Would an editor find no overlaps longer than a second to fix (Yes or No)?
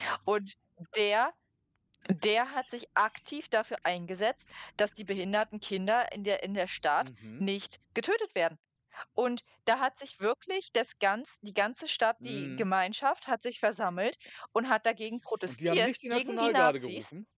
No